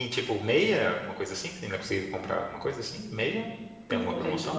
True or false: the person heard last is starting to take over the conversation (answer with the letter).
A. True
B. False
A